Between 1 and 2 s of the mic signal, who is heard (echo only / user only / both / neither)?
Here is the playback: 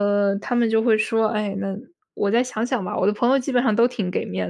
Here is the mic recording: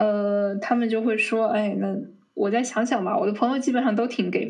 echo only